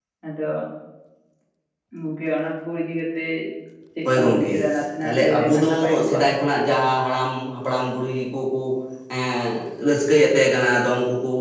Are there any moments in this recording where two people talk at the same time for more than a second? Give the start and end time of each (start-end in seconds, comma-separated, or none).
5.0-6.2